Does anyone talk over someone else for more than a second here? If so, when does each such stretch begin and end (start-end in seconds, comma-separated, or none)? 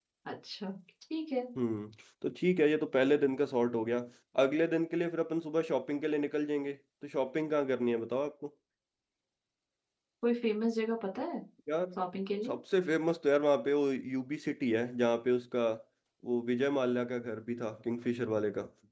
none